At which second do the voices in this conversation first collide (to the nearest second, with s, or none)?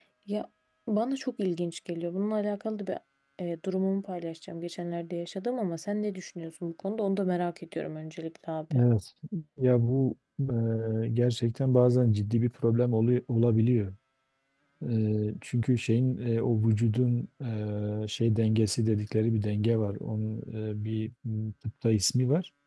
none